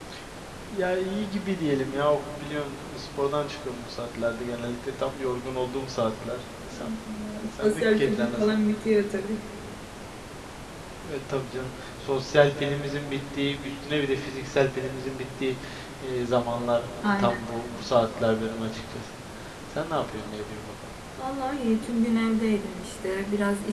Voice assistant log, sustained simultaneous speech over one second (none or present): present